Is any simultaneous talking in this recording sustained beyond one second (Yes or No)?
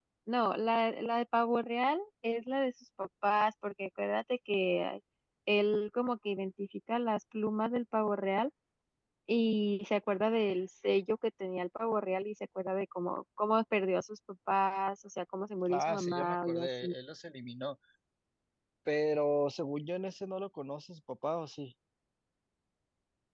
Yes